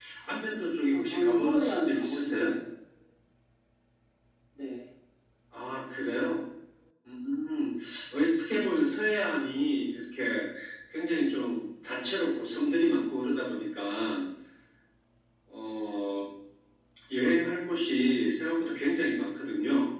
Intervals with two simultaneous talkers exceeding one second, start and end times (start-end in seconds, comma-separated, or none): 0.9-2.4